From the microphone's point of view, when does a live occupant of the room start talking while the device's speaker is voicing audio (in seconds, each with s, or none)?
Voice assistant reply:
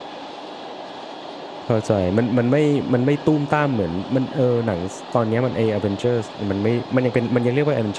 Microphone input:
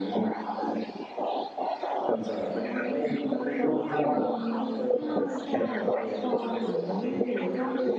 3.6 s